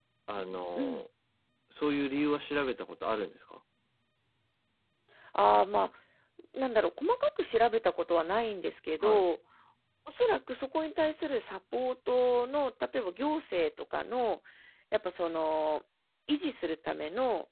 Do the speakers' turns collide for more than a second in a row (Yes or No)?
No